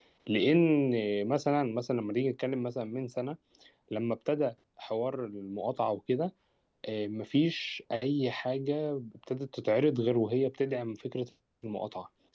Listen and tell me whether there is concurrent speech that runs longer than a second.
No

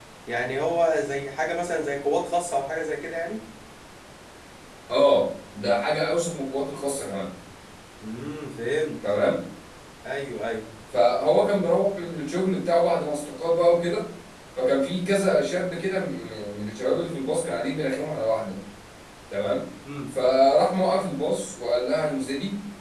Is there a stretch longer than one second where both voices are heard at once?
No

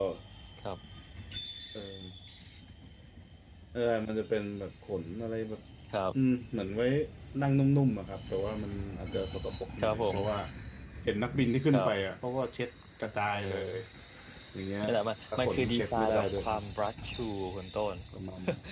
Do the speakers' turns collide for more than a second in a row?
Yes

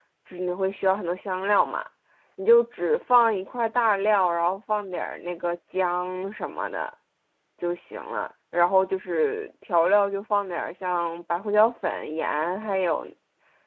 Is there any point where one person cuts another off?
No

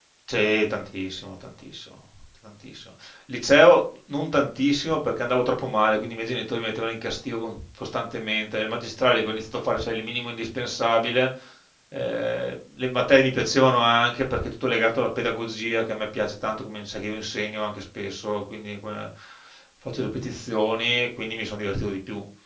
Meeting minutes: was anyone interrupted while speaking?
No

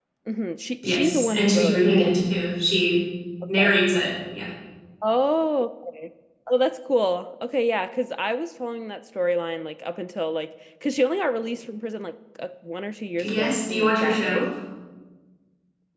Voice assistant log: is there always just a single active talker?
No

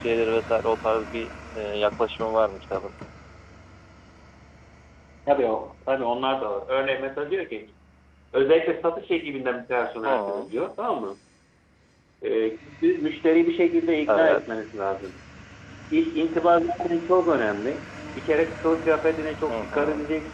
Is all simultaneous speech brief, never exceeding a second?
Yes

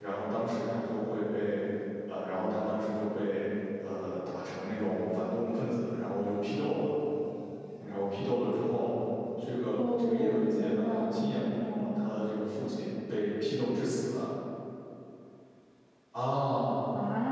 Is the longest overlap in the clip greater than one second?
Yes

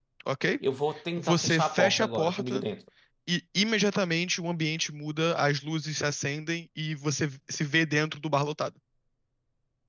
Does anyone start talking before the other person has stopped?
Yes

